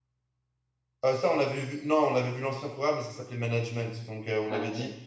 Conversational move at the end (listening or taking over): listening